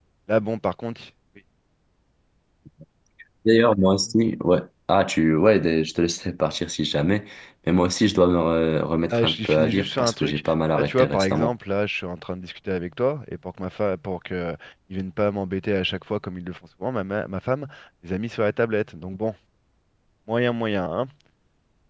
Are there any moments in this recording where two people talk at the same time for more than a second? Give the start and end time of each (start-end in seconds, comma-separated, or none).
9.1-11.5